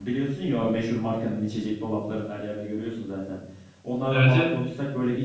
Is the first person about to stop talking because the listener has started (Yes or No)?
No